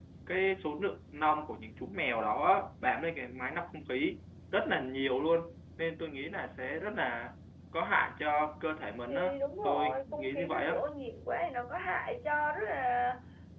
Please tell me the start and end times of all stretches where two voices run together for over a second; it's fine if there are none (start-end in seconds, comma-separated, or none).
9.1-10.8